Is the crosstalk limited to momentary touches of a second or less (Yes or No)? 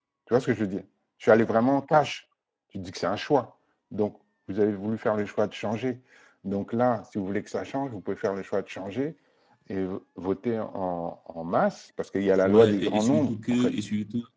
No